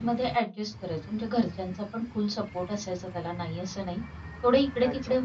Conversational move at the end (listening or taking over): listening